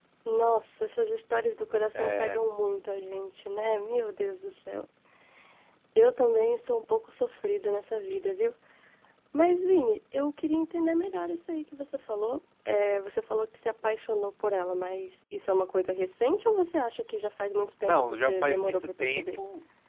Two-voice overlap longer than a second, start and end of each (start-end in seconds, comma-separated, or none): 17.8-19.4